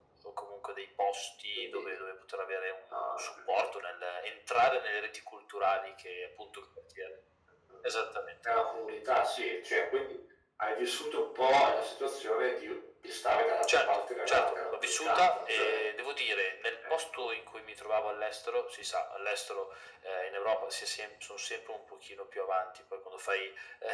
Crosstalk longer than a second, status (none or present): present